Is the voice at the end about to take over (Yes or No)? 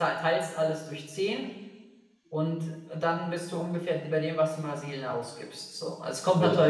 No